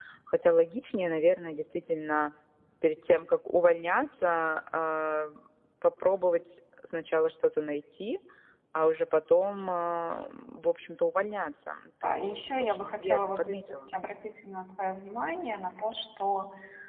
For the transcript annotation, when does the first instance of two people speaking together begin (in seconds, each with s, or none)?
12.0 s